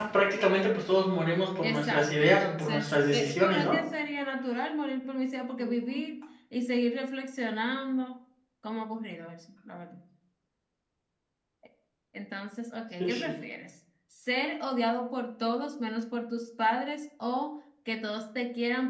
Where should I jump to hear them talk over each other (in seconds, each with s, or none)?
1.6 s